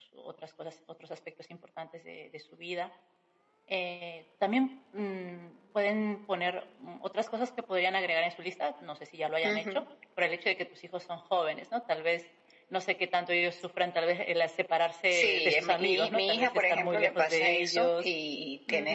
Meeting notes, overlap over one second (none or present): present